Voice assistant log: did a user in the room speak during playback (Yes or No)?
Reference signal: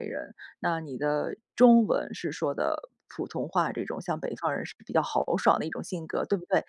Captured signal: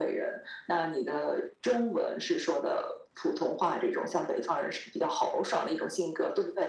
No